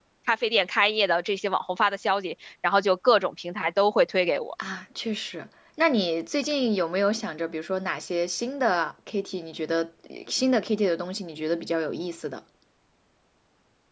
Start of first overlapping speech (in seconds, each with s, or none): none